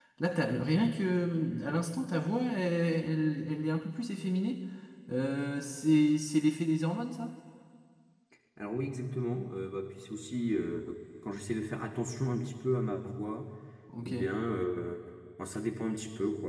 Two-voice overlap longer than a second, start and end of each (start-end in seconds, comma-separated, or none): none